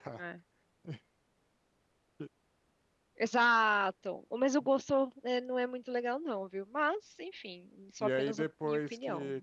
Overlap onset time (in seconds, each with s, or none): 8.0 s